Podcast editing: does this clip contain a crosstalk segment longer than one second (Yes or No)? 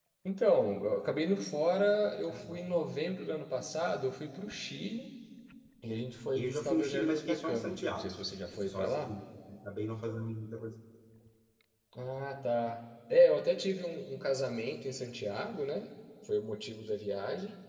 Yes